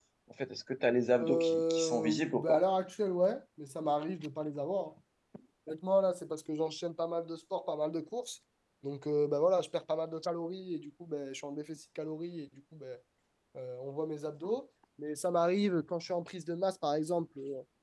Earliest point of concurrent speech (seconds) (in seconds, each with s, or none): 1.2 s